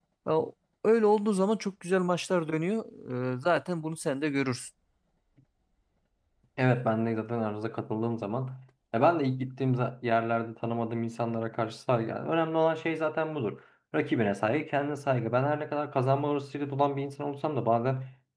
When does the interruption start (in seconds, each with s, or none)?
none